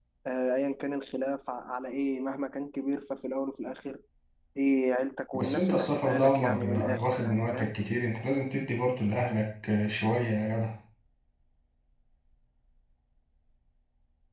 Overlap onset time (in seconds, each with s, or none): 5.3 s